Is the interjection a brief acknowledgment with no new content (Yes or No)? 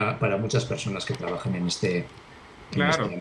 No